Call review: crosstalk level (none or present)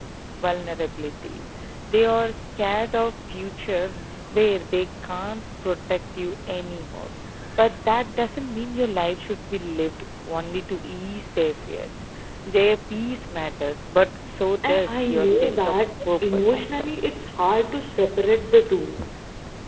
present